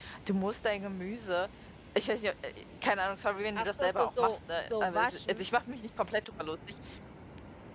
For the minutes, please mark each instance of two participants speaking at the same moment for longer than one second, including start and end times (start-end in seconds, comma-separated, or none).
3.6-5.4